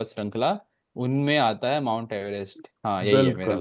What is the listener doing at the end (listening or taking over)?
taking over